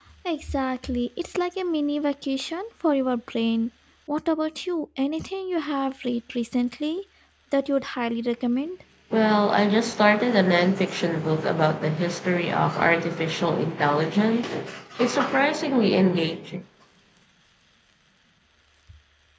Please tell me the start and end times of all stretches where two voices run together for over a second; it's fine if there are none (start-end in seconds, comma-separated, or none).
none